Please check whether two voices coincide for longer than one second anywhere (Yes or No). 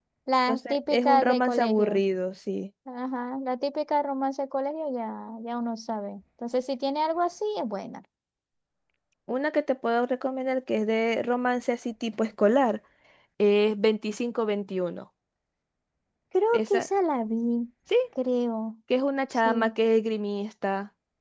Yes